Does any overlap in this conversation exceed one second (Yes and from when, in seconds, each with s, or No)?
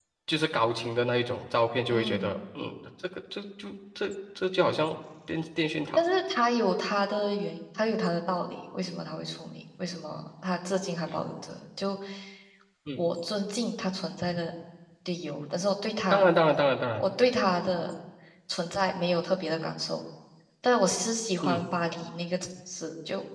No